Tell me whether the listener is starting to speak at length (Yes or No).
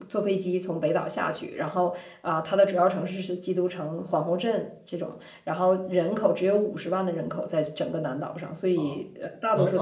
Yes